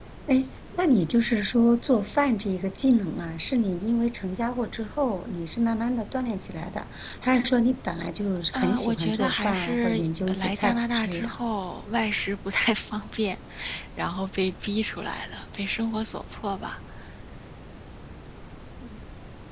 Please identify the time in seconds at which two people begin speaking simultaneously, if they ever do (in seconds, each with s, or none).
8.5 s